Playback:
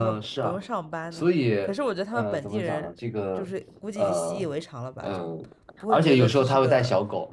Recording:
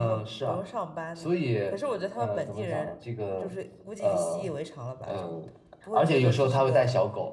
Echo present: Yes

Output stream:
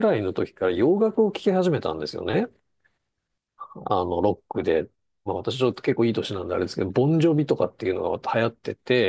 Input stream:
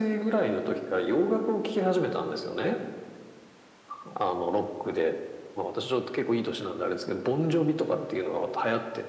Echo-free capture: No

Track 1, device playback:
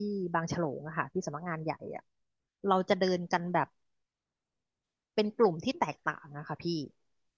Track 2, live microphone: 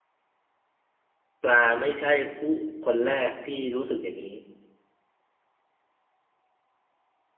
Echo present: No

